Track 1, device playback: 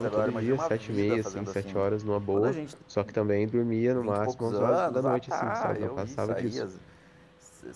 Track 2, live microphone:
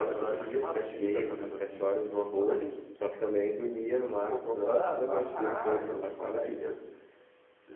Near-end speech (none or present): present